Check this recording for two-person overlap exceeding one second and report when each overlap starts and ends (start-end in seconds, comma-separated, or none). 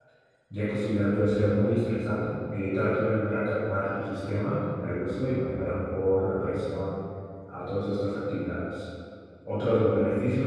none